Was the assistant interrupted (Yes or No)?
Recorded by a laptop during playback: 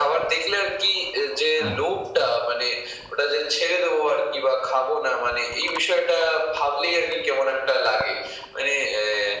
Yes